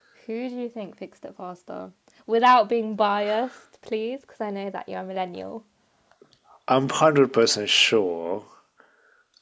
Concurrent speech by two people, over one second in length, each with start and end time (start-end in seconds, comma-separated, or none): none